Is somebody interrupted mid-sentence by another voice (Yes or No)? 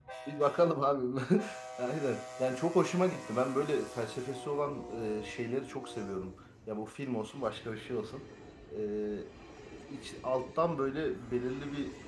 No